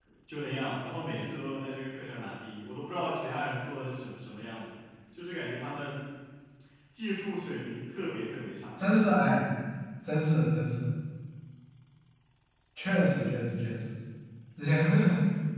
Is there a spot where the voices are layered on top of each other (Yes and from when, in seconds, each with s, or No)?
No